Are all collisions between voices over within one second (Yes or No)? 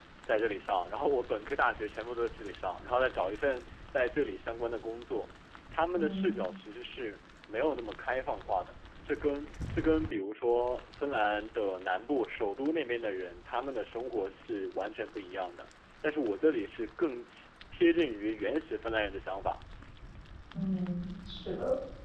Yes